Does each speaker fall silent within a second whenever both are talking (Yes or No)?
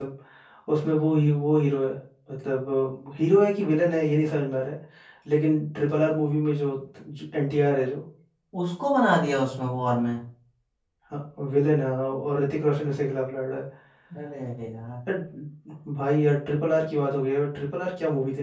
Yes